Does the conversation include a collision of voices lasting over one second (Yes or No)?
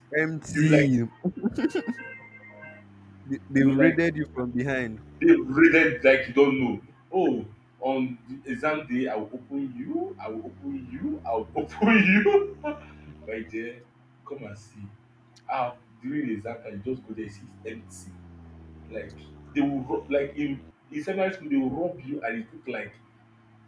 No